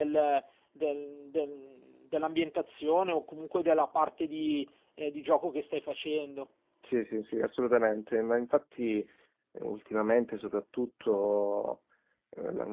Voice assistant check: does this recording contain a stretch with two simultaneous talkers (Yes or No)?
No